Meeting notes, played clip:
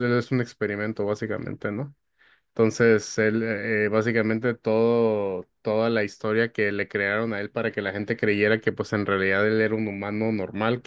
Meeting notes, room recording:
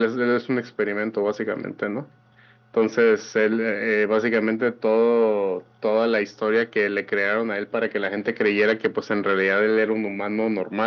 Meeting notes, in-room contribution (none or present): none